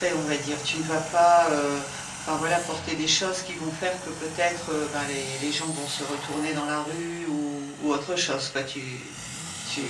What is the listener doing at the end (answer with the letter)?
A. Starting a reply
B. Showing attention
B